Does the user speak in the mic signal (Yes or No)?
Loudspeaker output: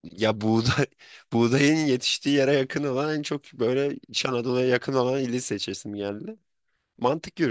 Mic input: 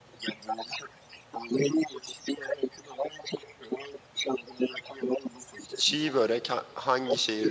Yes